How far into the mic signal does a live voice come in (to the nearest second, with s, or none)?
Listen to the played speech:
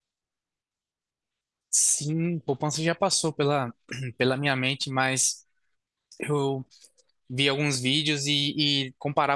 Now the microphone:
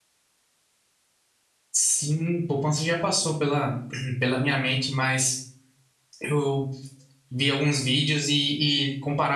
none